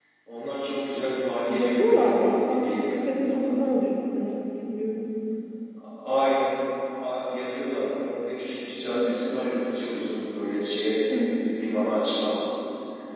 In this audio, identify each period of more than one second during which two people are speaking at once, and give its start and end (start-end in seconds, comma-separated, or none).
1.5-3.5